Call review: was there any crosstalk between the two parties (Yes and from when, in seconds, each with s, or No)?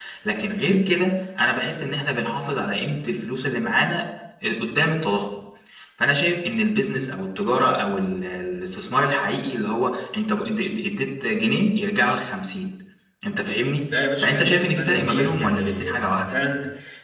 Yes, from 14.0 s